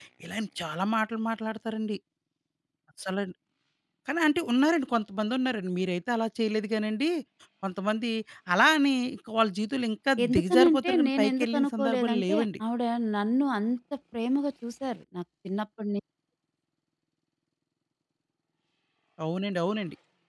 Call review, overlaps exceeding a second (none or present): present